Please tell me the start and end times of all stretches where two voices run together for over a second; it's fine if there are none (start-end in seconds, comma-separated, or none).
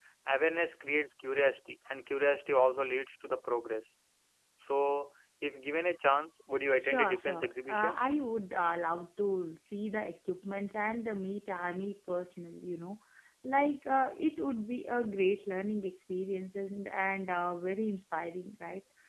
6.8-8.0